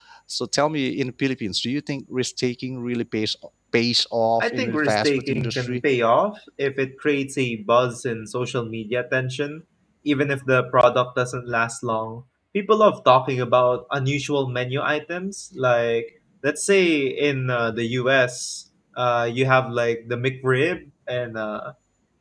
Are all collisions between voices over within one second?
No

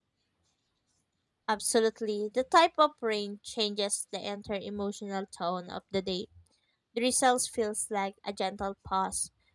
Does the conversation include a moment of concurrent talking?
No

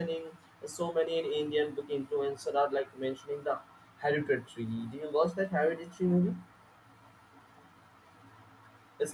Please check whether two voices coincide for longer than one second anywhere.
No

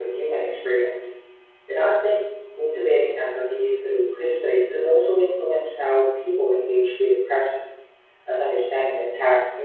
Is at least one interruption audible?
No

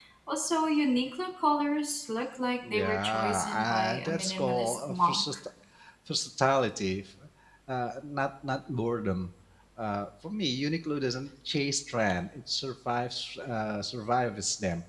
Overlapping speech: Yes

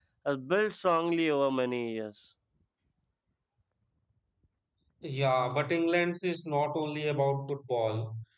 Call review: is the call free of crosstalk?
Yes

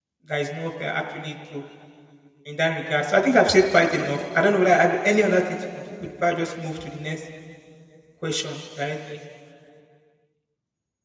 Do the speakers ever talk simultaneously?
No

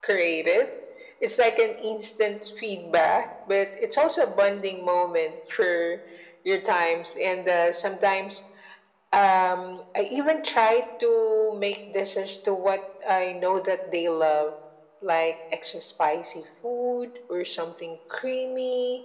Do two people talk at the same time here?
No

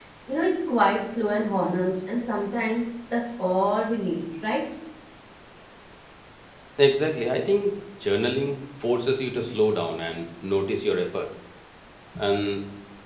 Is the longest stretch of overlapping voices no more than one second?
Yes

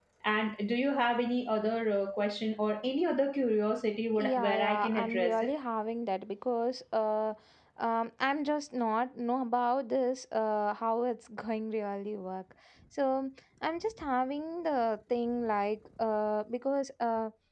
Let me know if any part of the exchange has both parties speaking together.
Yes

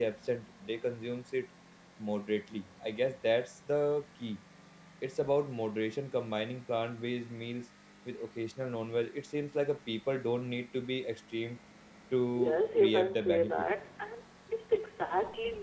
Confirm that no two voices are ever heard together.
No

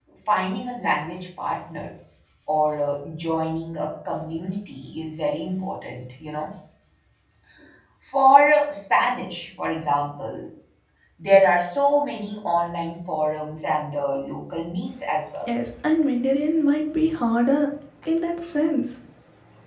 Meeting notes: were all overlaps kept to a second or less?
Yes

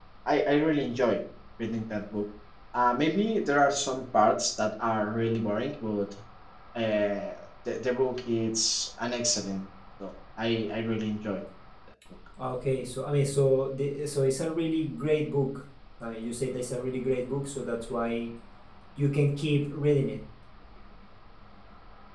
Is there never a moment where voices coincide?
Yes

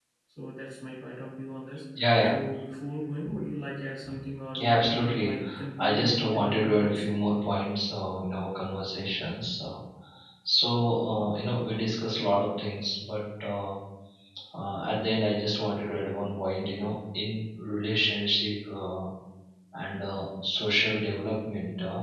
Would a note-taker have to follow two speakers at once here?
Yes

